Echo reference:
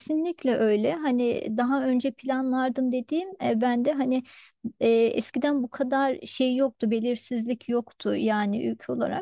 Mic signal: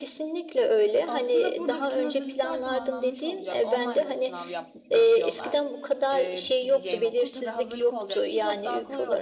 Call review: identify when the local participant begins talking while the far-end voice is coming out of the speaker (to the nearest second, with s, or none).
1 s